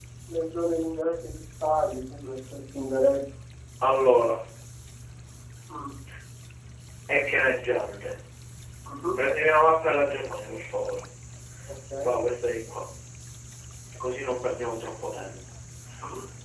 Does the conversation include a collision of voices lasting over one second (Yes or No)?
No